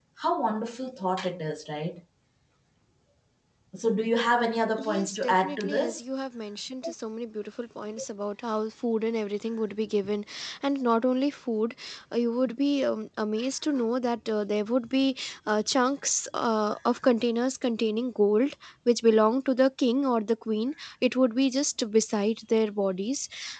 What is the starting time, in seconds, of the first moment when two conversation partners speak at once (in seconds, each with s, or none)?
4.8 s